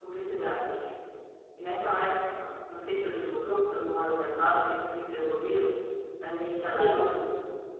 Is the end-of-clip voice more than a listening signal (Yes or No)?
No